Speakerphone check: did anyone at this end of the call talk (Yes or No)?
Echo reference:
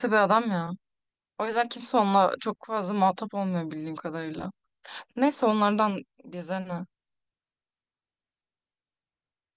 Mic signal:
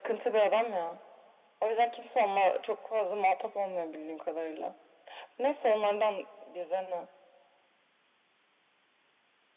No